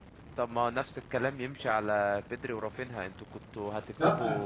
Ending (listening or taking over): listening